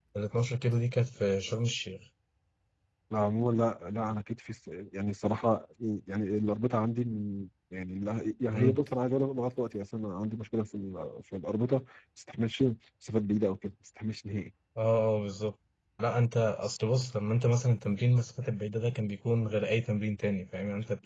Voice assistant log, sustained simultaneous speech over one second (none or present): none